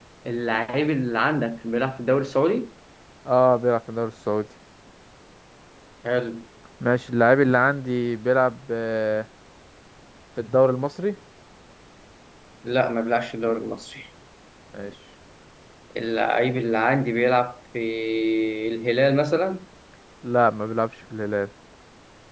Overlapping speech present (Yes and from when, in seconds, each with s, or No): No